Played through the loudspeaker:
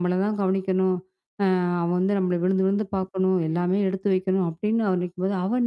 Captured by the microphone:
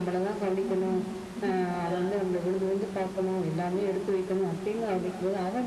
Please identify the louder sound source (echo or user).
echo